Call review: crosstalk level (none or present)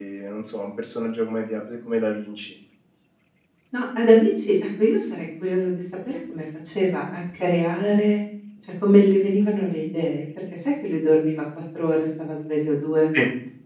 none